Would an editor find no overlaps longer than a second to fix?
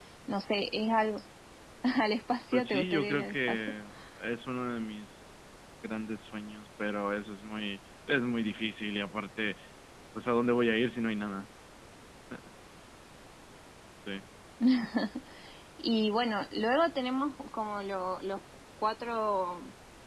No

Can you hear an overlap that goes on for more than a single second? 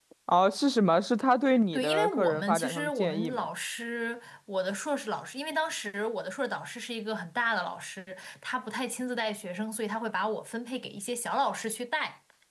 Yes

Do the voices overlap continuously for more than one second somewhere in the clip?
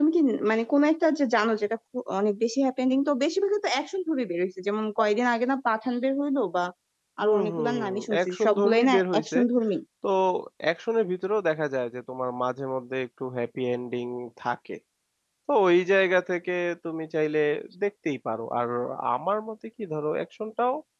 Yes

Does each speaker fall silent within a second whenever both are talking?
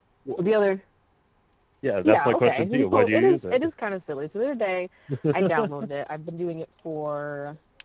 No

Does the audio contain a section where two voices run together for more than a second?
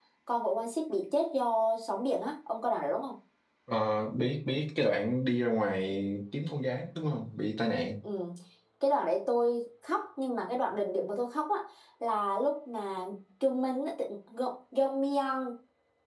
No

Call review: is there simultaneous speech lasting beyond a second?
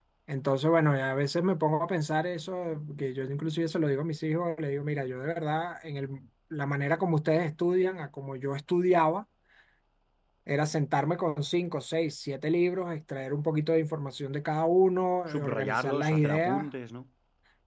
Yes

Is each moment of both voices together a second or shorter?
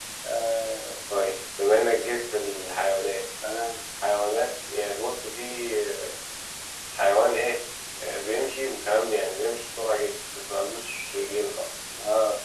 Yes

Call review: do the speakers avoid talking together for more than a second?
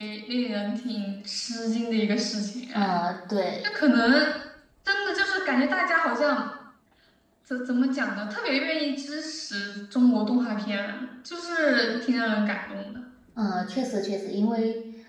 Yes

